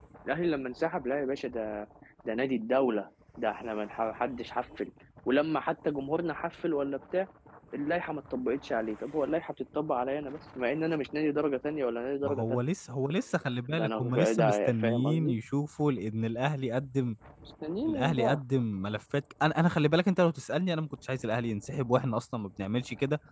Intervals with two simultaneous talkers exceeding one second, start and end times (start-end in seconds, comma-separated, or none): 13.7-15.3